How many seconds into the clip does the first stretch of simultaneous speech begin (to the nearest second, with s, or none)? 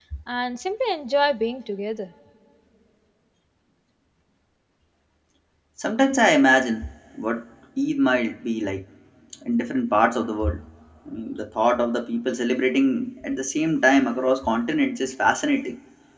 none